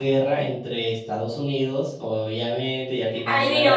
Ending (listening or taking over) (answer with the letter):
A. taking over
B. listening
A